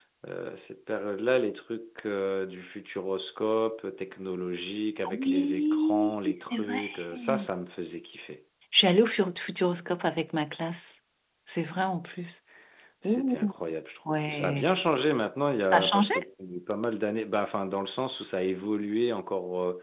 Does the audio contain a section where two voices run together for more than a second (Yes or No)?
Yes